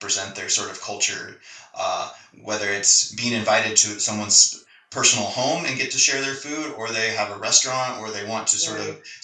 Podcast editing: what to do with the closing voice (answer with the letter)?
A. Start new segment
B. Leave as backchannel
B